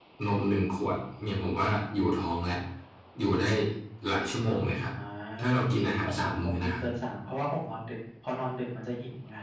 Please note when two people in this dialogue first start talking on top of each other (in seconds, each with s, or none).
5.6 s